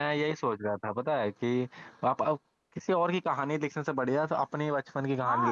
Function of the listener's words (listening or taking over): taking over